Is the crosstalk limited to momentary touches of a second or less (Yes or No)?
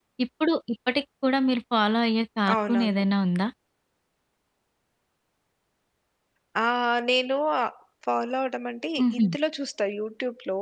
Yes